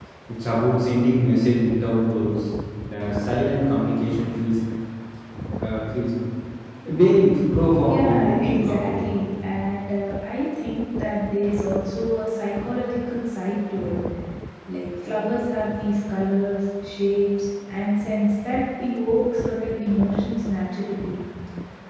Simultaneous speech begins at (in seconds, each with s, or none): 7.8 s